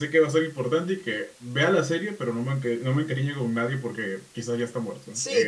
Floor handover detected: Yes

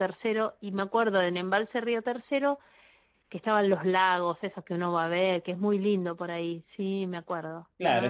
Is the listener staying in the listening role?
No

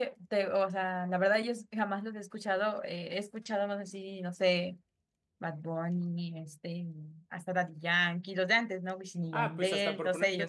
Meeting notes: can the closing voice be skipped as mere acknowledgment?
No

